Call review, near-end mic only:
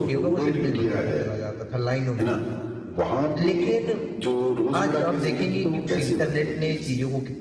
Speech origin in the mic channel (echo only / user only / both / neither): both